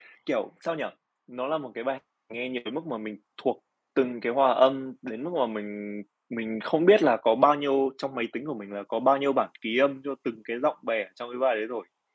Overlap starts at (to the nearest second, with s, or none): none